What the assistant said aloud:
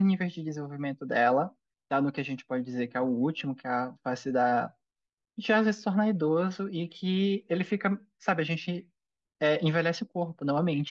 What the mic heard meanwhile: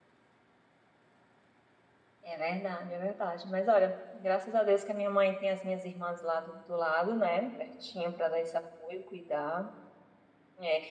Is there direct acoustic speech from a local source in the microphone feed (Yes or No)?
Yes